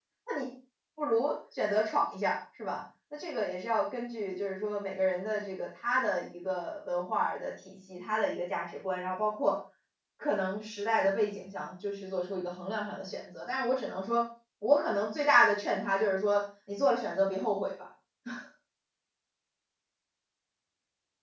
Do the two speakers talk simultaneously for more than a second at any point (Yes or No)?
No